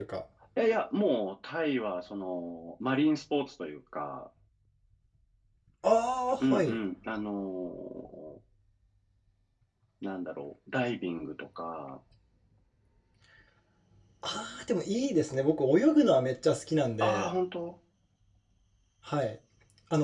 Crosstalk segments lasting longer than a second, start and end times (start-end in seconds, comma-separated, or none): none